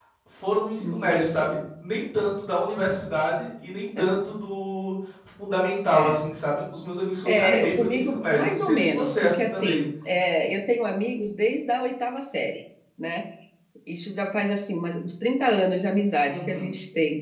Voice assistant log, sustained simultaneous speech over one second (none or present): present